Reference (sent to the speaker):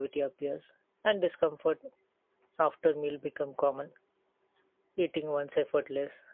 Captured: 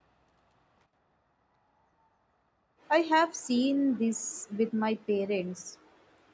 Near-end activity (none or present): present